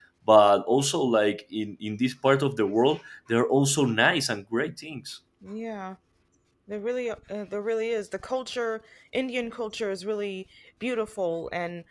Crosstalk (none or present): none